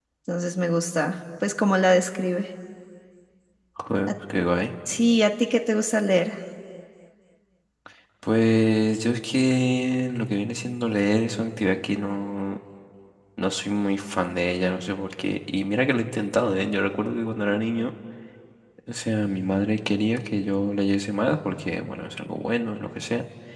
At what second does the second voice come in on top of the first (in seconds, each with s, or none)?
none